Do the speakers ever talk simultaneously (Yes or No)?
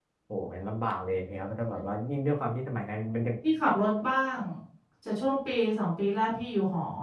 No